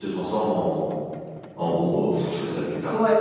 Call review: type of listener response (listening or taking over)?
taking over